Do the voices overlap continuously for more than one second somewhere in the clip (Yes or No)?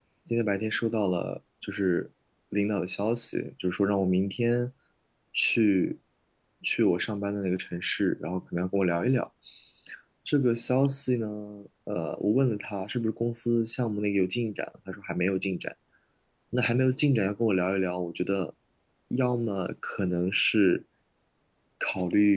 No